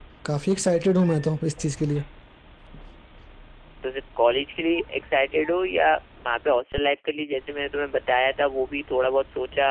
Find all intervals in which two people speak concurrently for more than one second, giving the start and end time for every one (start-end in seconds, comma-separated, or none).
none